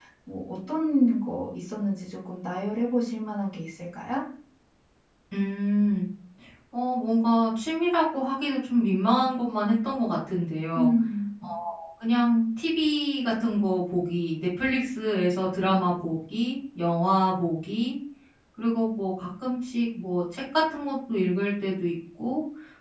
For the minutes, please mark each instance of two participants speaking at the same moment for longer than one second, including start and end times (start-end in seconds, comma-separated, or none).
none